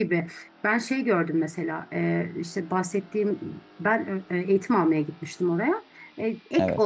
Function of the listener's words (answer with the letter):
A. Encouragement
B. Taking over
A